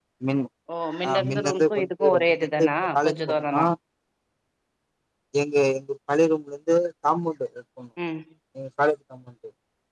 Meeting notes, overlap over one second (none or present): present